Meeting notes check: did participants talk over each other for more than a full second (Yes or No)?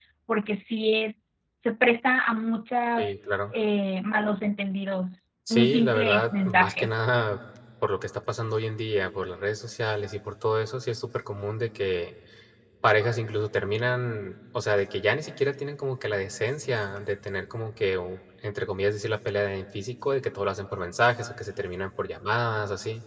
Yes